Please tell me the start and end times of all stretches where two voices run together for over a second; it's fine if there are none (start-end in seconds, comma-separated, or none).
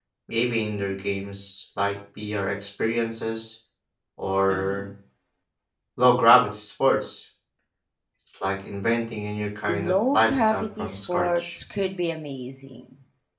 9.7-11.5